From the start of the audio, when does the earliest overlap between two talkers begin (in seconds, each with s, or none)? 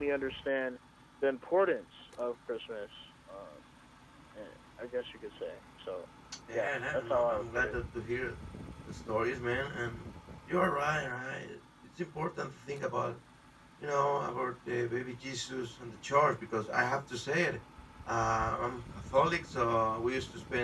6.5 s